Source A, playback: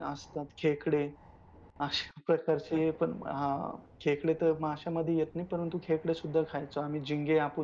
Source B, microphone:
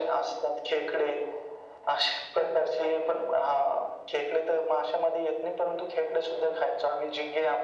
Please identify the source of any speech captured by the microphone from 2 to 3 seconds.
echo only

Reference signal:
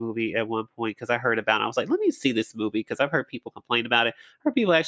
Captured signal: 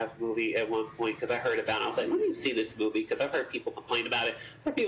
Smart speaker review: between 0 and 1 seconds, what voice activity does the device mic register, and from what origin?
echo only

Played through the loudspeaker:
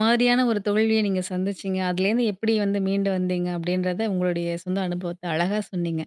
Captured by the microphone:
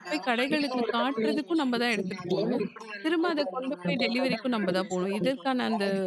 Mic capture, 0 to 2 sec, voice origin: both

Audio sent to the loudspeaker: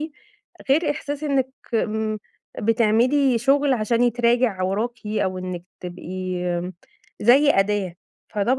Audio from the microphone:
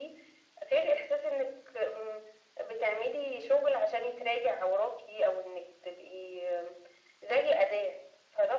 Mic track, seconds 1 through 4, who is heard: echo only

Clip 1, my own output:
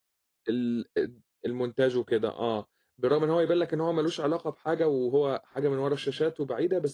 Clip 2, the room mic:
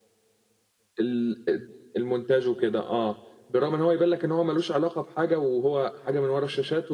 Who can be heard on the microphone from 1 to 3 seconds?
echo only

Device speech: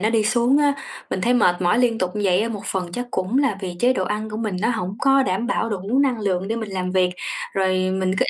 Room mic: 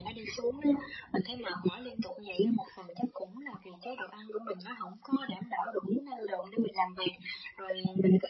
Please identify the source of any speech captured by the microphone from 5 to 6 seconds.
echo only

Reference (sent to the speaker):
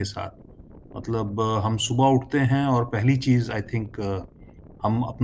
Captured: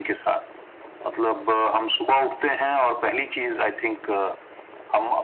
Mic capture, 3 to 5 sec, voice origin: echo only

